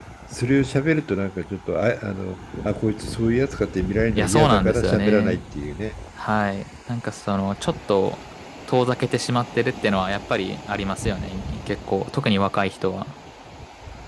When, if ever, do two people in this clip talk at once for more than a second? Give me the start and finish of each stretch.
4.2-5.4

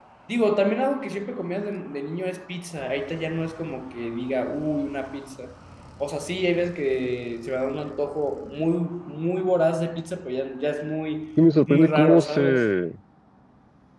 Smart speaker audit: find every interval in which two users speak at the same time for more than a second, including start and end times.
11.4-12.8

